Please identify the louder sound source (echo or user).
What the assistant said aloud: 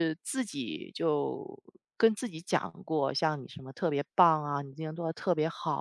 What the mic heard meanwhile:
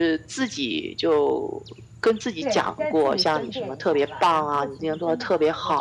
echo